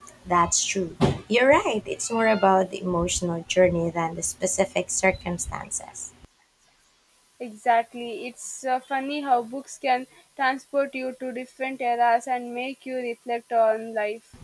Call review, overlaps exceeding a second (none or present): none